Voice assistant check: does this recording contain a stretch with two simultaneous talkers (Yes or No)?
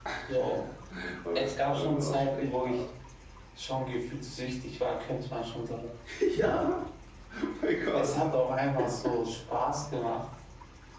Yes